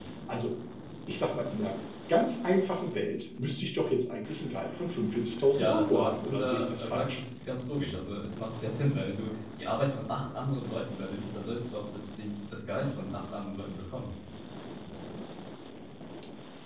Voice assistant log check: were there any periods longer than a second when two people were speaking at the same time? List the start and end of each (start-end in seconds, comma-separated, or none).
5.6-7.2